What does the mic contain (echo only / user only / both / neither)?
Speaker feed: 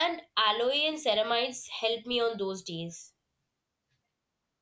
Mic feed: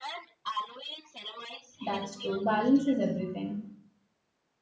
both